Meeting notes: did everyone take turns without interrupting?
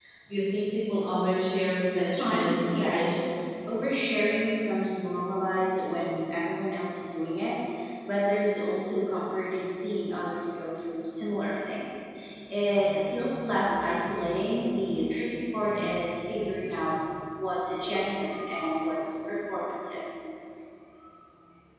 No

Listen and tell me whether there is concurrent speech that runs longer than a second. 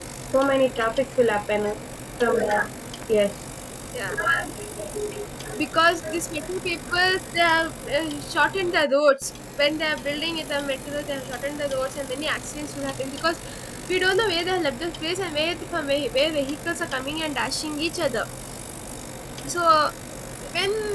No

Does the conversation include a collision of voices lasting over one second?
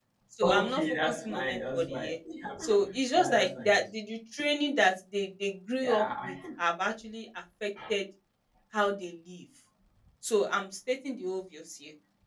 Yes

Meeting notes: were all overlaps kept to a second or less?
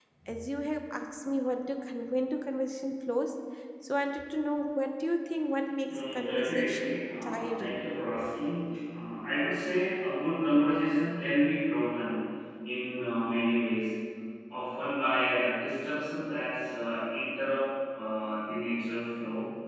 No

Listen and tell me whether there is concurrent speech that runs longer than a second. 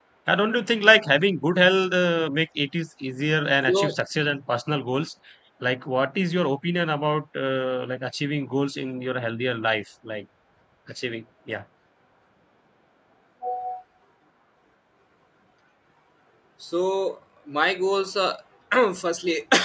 No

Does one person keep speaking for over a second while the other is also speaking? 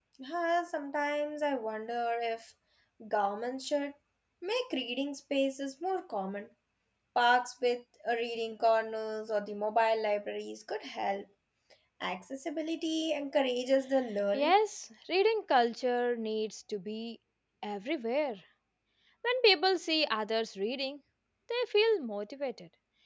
No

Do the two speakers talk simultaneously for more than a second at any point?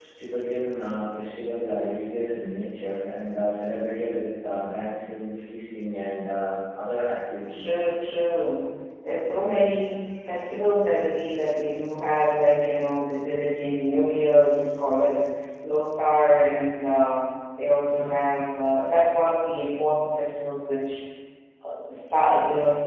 No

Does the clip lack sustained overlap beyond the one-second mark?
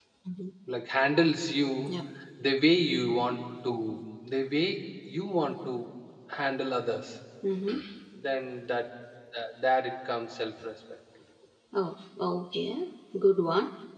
Yes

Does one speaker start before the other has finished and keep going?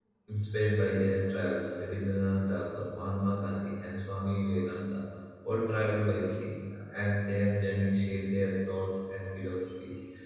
No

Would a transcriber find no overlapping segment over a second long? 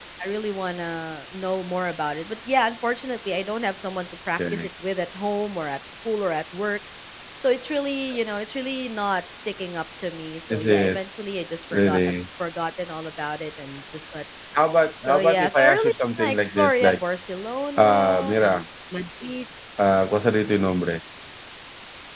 No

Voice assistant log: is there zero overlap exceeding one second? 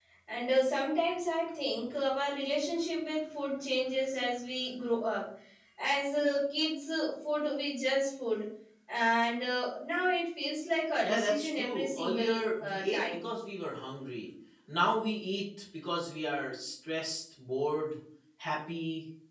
No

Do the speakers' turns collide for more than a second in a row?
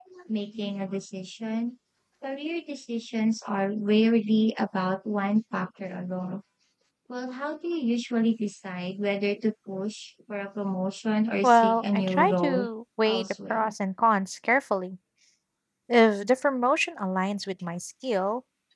Yes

